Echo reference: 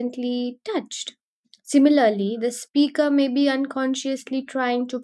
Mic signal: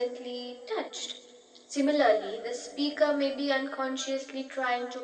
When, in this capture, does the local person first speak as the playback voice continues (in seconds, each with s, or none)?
none